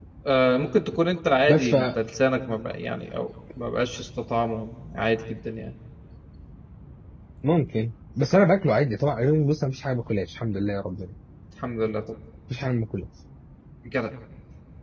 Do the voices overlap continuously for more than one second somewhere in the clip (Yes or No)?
No